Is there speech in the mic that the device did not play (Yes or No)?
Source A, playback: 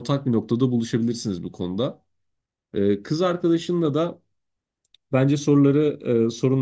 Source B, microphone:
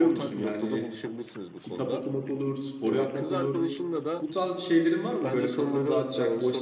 Yes